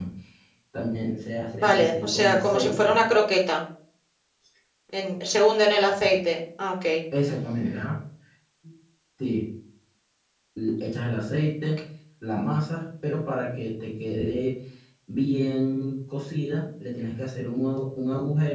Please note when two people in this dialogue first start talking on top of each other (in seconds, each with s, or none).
1.5 s